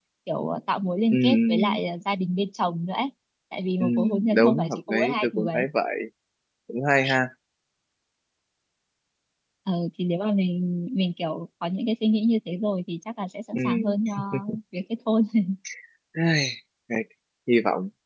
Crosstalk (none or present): present